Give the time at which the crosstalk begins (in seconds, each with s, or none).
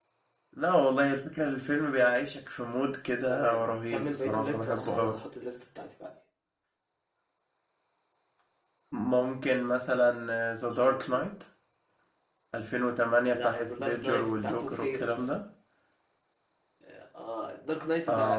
3.3 s